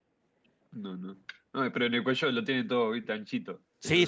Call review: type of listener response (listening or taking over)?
taking over